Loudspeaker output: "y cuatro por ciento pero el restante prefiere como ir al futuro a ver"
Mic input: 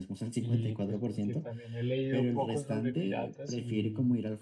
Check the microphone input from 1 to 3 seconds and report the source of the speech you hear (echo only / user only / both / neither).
both